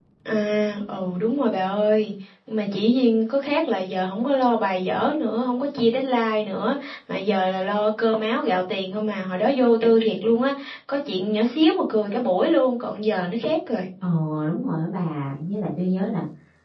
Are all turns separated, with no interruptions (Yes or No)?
Yes